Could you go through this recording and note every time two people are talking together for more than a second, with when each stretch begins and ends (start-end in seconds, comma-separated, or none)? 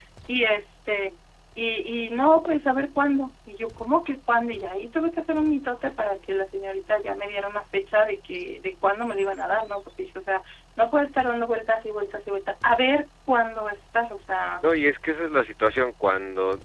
none